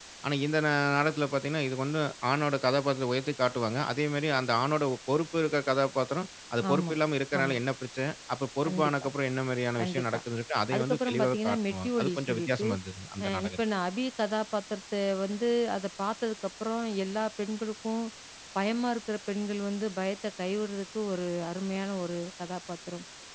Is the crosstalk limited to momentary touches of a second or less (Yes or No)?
No